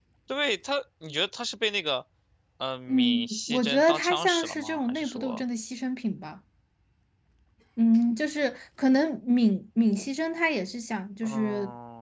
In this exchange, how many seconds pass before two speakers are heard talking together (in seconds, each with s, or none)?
2.9 s